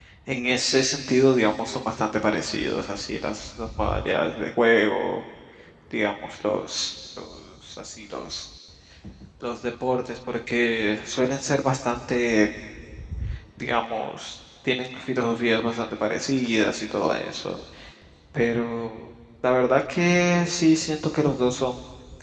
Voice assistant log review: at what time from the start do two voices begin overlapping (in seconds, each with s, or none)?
none